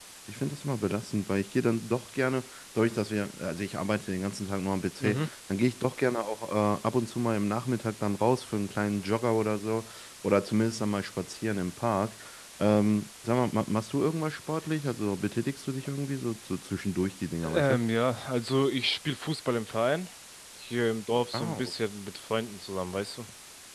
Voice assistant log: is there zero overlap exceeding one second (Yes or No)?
Yes